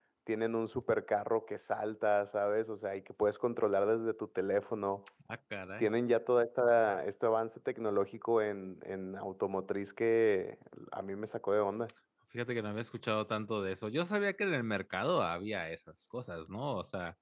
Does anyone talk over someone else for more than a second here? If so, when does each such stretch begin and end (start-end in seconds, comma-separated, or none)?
none